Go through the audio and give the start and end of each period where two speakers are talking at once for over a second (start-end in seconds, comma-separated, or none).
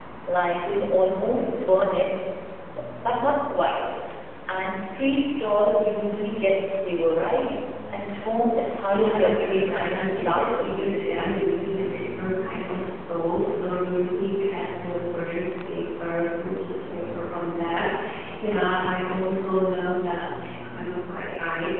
8.8-10.9